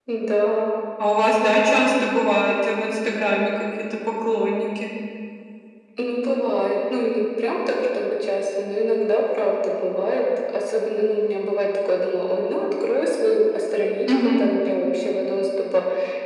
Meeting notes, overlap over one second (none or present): none